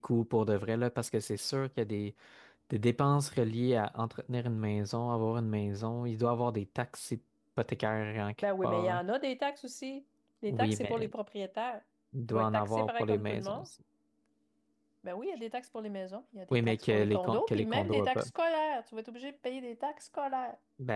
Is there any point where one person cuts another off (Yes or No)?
Yes